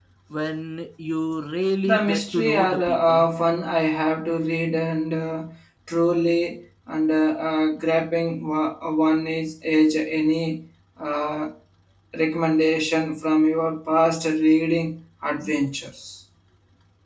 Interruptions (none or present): present